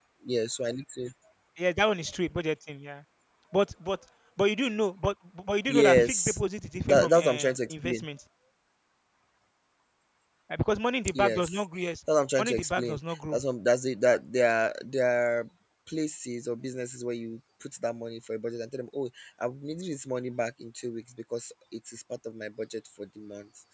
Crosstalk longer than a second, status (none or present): present